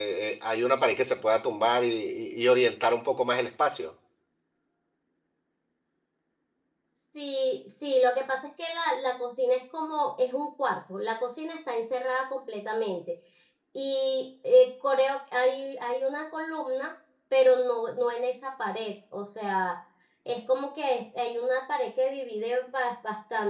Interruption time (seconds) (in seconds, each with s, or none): none